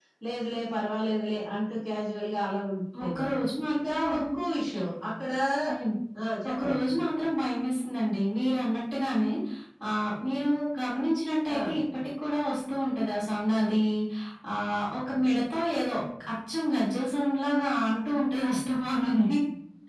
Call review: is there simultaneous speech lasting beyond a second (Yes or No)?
No